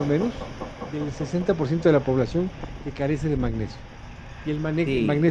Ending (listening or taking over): listening